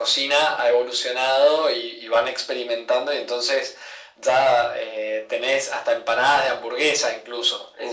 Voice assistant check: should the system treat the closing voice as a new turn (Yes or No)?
No